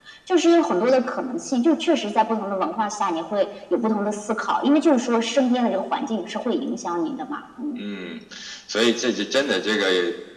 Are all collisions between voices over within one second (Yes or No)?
Yes